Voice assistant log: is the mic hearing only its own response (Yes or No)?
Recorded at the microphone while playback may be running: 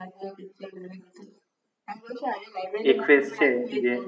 No